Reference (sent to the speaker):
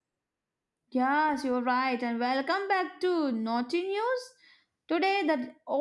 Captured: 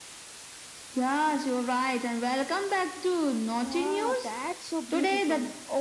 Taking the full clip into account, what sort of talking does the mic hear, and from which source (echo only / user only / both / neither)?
both